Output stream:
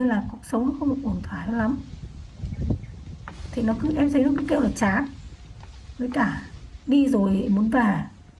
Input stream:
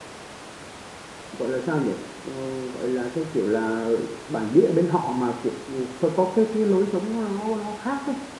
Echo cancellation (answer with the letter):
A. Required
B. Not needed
B